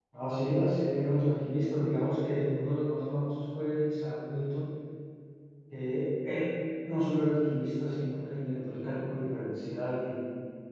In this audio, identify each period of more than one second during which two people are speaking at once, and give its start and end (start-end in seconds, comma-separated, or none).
none